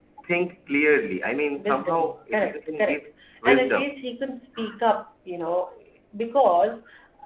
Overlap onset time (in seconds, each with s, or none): 1.6 s